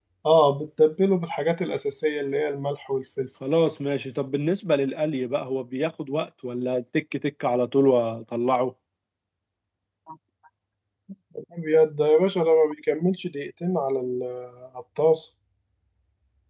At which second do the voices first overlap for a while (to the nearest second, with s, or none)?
none